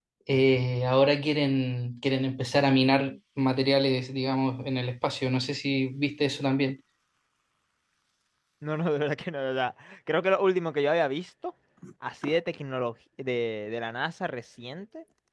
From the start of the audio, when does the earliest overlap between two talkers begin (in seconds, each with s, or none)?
none